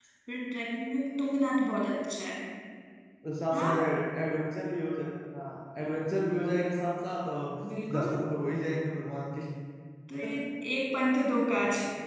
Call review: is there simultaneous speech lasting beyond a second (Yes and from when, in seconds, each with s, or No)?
No